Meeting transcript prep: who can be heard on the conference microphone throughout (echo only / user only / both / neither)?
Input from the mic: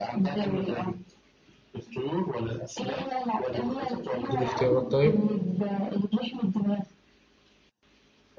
both